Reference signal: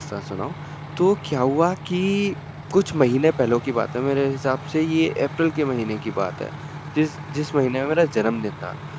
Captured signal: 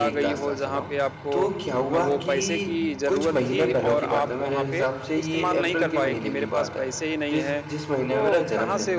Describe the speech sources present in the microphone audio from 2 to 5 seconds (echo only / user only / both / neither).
both